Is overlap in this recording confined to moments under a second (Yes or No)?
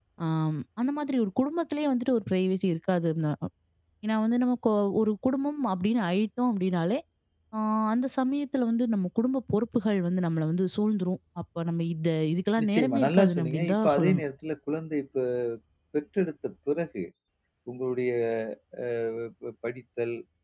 No